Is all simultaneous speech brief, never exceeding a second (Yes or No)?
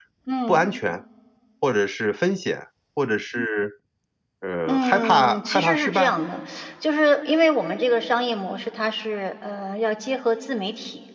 No